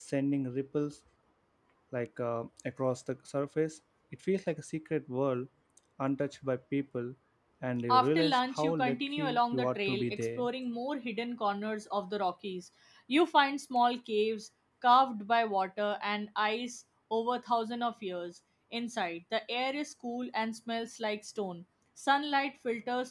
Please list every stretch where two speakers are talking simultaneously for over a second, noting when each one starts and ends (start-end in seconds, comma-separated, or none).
7.9-10.5